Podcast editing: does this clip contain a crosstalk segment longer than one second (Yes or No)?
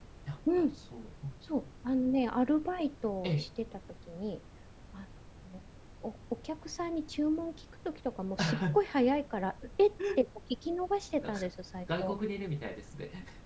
No